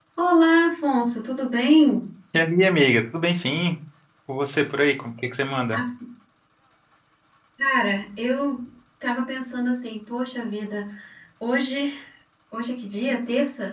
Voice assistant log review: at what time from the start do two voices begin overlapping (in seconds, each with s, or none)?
none